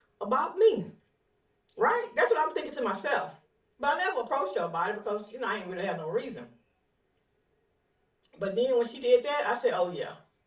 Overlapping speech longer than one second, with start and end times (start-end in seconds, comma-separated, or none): none